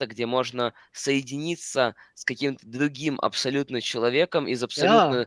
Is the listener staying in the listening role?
Yes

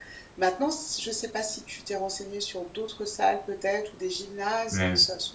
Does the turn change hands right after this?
No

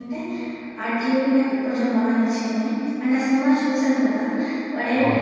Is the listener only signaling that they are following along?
Yes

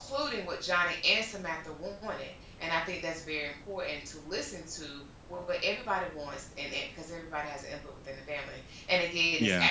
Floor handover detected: No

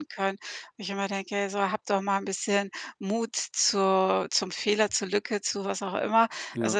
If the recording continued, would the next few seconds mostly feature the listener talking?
No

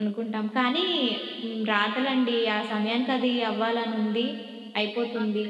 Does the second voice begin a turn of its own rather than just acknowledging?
No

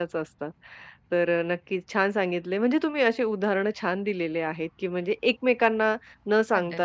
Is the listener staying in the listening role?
Yes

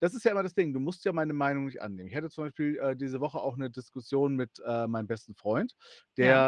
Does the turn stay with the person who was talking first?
Yes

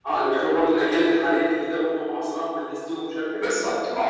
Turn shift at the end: Yes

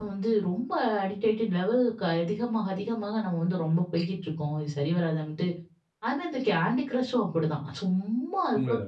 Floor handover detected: Yes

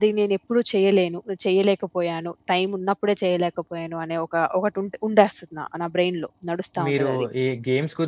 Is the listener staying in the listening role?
No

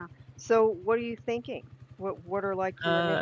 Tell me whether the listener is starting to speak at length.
Yes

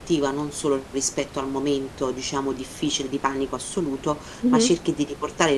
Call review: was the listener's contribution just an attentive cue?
Yes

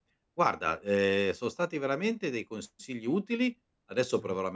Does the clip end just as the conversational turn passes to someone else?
No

